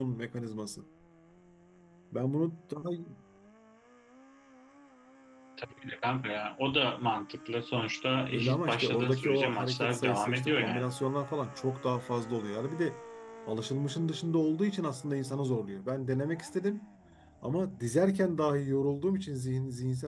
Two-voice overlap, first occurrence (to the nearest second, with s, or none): 8 s